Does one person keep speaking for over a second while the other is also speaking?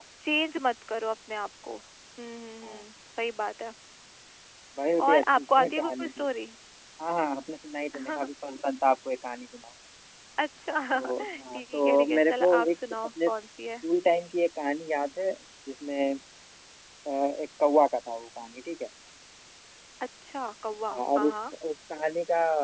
Yes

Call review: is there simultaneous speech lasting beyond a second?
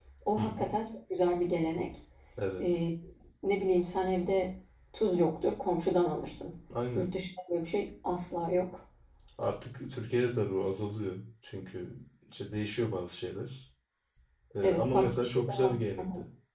Yes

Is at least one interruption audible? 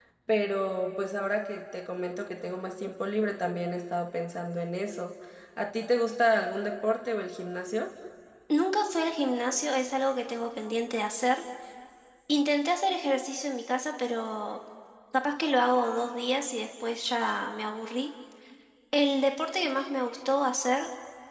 No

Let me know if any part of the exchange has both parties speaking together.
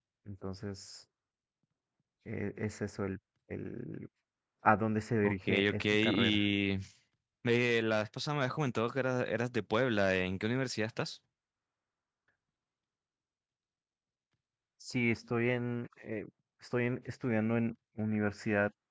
Yes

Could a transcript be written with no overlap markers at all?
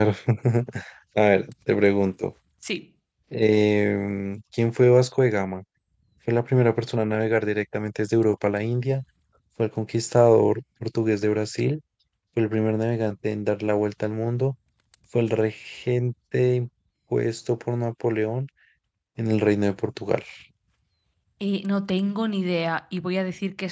Yes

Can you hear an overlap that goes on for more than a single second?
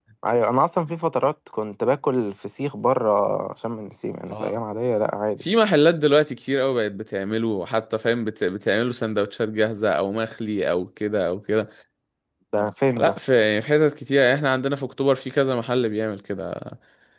No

